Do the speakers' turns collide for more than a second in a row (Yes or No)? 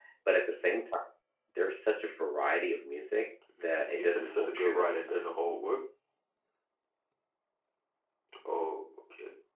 Yes